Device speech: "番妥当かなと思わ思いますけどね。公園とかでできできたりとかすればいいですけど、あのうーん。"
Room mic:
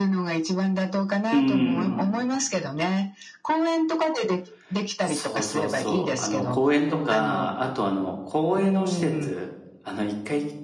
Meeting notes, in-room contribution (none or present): present